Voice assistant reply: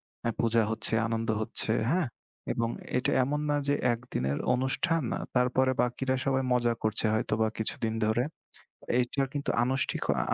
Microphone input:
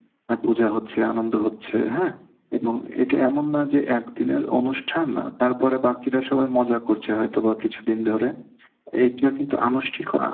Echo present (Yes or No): Yes